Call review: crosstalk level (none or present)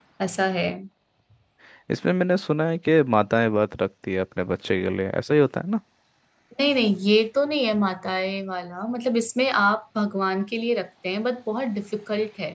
none